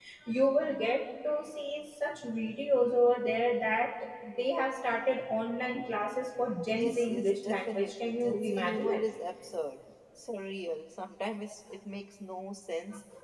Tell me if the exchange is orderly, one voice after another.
No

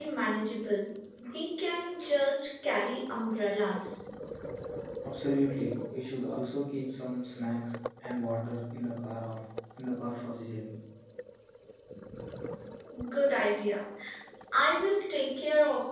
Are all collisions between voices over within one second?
Yes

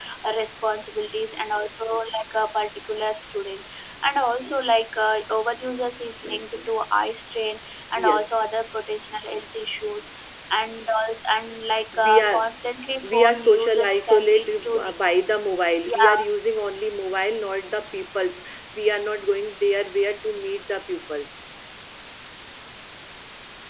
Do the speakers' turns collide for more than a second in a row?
Yes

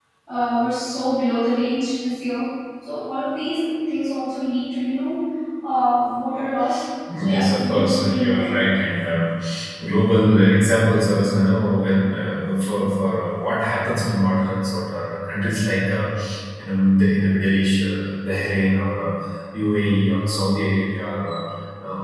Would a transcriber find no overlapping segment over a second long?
No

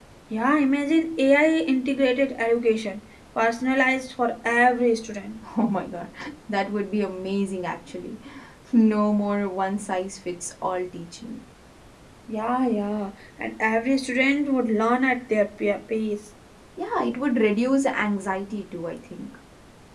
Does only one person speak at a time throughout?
Yes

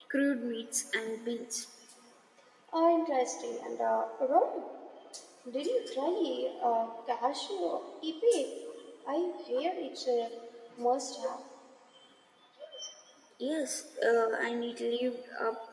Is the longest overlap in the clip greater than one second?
No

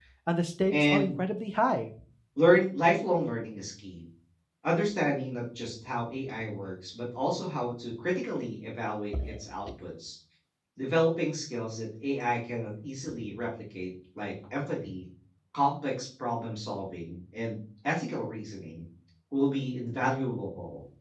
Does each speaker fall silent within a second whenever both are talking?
Yes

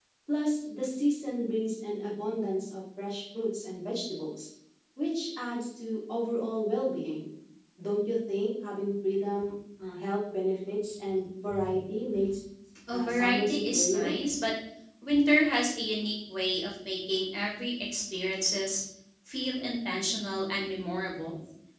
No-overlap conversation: No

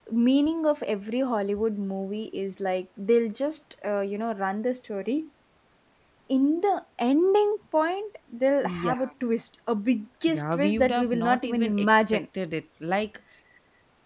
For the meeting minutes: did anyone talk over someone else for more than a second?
Yes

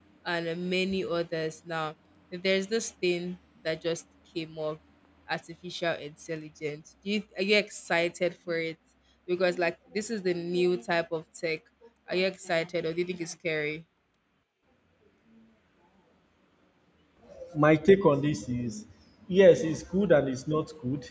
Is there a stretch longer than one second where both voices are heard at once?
No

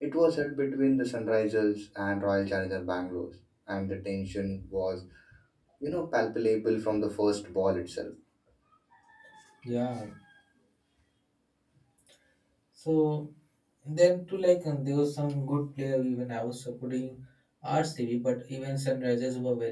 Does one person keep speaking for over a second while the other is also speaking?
No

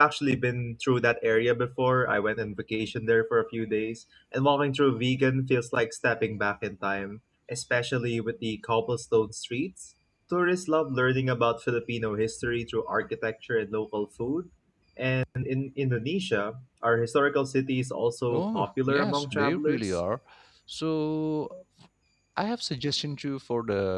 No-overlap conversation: No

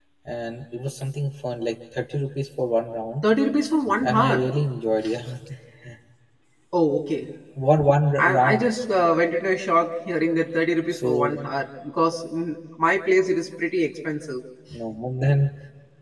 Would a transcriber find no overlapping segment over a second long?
Yes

